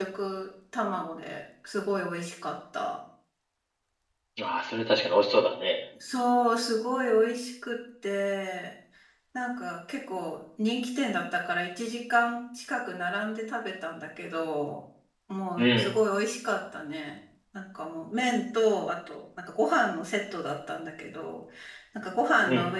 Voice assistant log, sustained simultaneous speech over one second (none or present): none